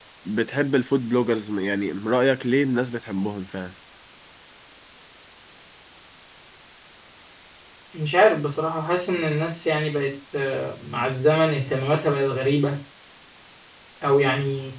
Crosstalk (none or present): none